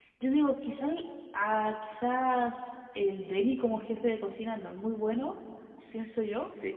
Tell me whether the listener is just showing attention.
No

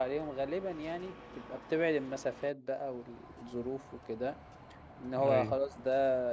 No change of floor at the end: Yes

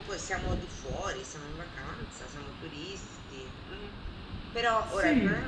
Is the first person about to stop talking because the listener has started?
No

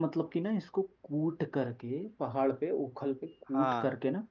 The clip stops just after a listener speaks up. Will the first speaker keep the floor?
Yes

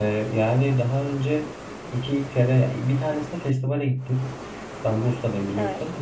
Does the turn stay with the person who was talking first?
Yes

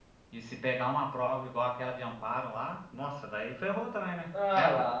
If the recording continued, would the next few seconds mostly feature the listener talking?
Yes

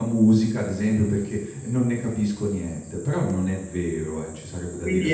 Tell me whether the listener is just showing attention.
No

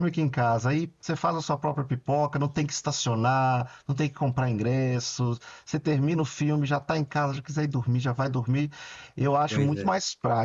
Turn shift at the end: No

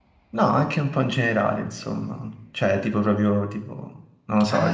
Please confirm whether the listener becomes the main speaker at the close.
Yes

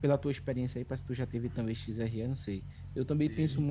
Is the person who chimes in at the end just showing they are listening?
Yes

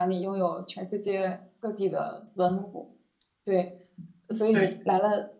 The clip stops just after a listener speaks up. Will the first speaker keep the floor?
Yes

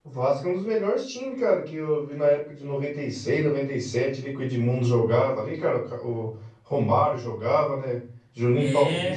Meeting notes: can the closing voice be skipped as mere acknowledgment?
Yes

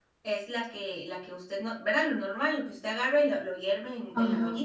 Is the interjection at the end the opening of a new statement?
Yes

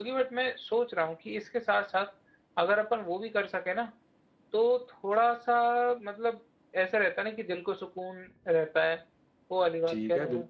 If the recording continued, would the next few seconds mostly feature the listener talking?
Yes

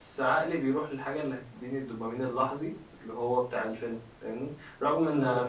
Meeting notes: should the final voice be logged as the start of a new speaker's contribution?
No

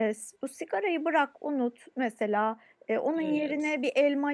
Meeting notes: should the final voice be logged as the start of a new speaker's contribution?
No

